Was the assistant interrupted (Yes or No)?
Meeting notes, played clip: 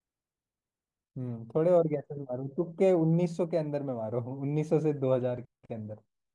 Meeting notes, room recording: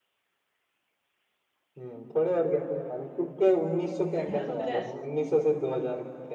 Yes